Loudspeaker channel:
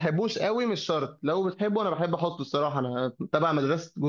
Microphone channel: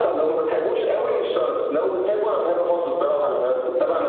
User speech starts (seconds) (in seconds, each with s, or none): none